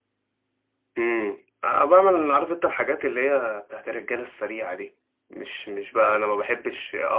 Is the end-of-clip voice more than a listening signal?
No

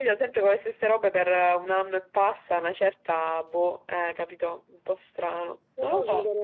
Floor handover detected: Yes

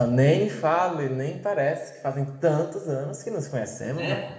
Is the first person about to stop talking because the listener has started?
Yes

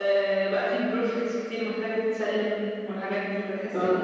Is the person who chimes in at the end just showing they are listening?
No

